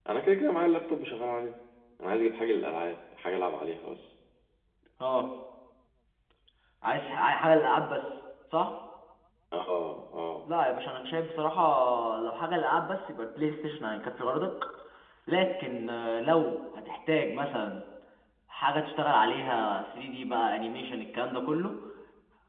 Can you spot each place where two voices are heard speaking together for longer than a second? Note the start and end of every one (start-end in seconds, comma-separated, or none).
none